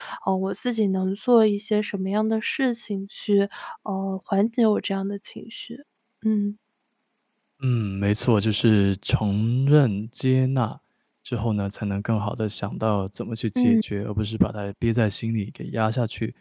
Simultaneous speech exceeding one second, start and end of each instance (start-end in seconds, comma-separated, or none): none